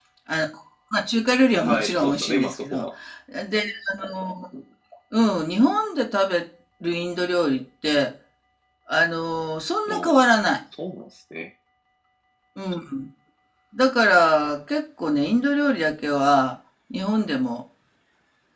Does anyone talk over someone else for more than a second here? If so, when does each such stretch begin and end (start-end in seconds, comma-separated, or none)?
1.6-2.9